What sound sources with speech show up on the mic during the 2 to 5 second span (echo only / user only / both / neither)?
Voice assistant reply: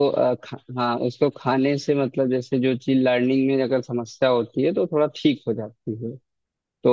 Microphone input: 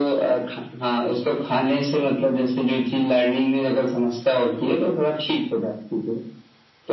echo only